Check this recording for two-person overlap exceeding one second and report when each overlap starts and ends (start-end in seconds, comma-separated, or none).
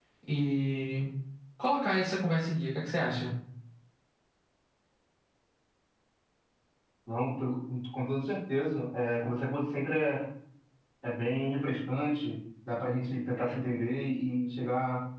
none